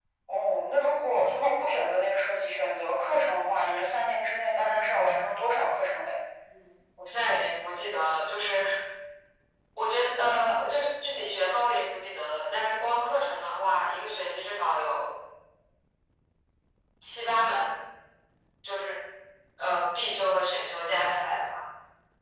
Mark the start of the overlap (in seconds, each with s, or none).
none